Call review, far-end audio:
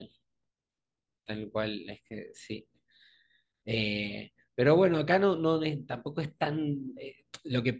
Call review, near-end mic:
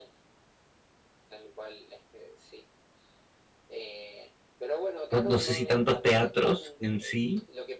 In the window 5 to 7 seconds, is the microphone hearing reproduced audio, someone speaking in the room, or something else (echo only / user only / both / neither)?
both